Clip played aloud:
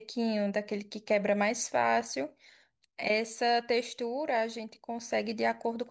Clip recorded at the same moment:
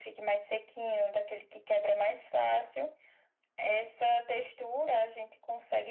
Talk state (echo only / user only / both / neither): echo only